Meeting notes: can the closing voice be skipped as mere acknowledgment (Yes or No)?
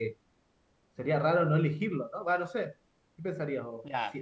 No